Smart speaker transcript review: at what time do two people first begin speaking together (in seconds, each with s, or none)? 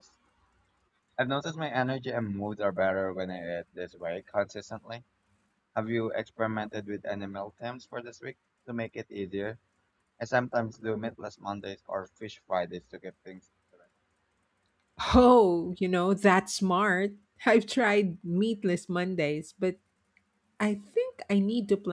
none